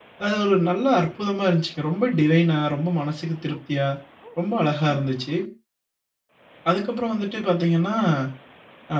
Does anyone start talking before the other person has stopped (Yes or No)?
No